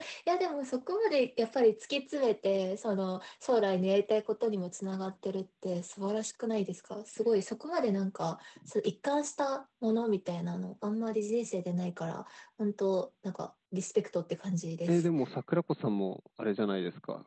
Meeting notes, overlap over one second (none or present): none